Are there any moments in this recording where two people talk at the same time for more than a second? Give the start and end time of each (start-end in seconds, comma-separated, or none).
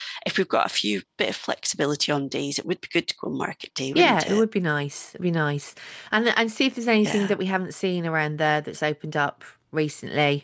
none